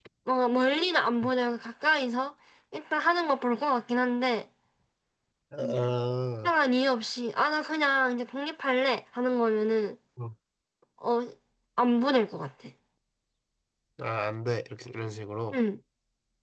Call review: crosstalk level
none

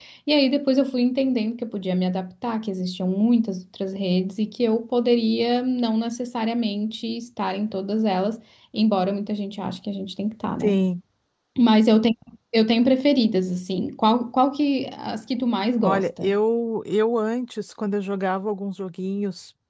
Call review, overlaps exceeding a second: none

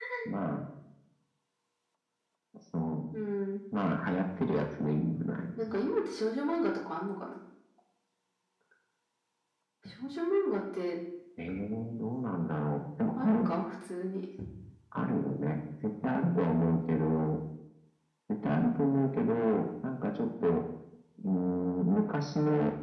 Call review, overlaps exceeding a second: none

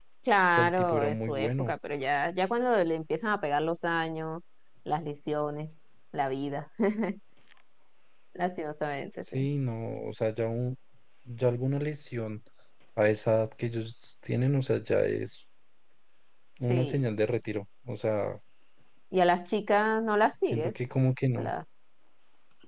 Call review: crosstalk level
present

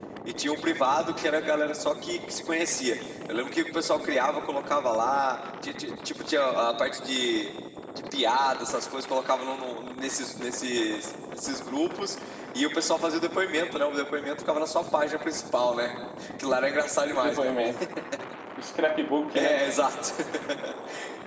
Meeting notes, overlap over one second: none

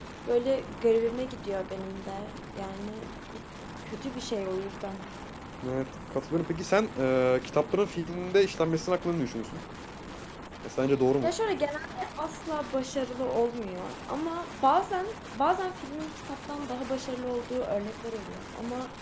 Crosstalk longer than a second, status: none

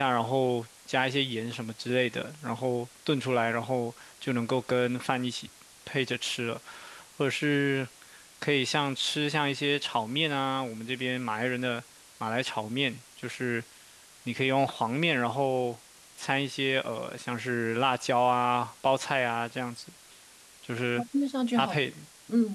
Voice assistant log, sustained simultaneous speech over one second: none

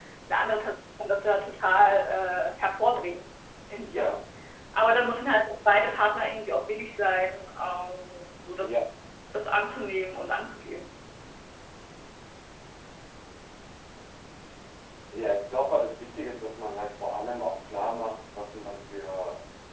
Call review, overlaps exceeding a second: none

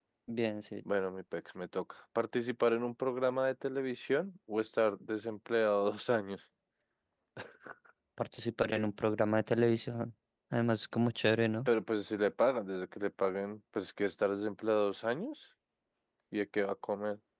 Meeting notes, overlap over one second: none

